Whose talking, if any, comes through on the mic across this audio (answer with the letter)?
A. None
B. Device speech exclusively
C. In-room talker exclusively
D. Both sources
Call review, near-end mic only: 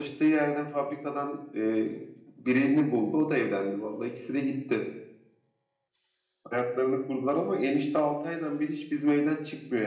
C